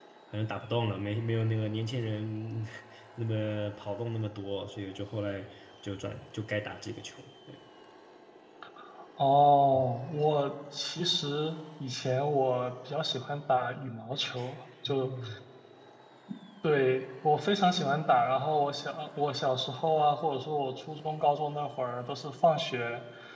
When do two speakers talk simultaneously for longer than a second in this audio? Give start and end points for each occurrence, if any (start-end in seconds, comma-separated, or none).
none